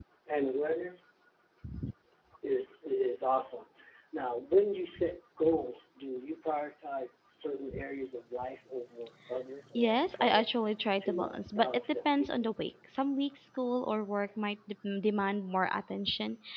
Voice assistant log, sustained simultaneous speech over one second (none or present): present